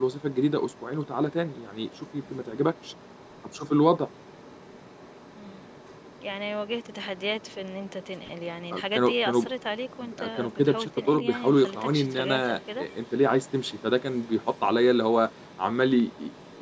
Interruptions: present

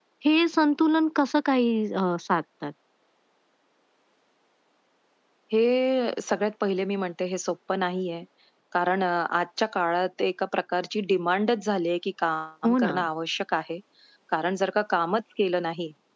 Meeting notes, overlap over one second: none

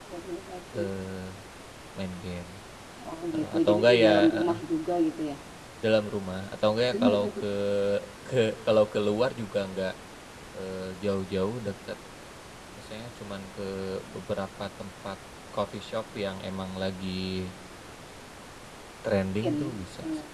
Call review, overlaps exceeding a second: present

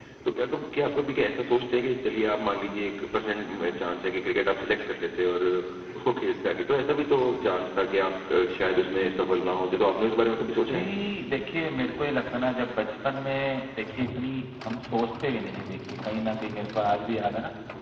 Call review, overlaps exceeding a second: none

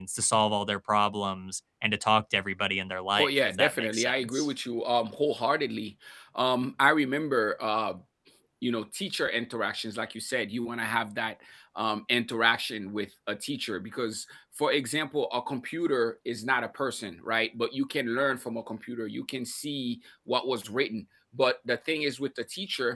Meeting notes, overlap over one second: present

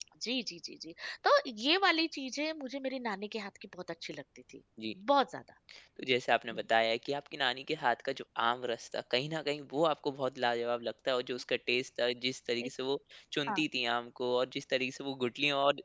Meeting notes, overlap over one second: none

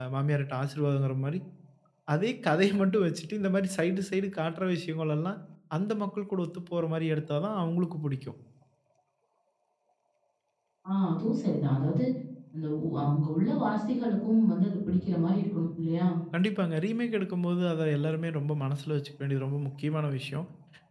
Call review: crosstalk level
none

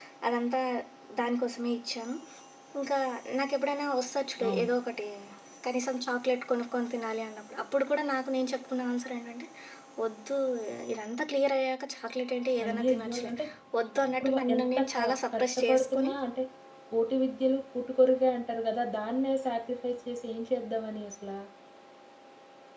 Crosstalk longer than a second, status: present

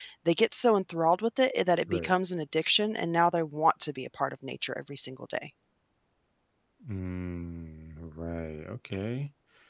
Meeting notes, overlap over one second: none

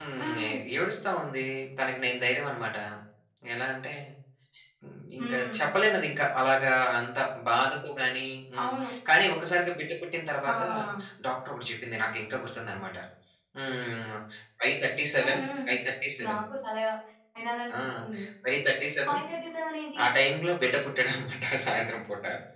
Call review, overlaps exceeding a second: none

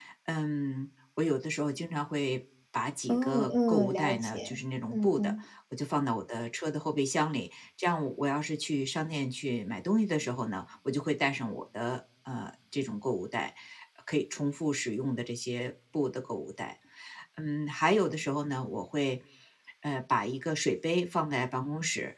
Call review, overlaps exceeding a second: present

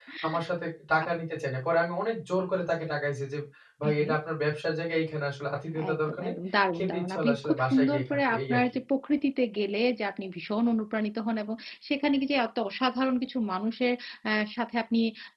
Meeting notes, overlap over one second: present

